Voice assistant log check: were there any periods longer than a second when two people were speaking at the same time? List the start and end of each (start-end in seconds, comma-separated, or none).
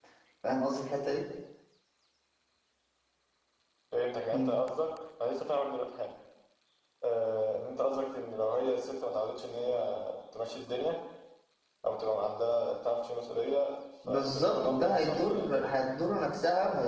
14.1-15.9